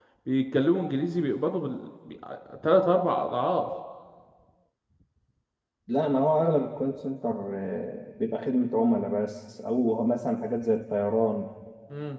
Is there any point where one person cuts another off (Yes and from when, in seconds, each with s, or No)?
No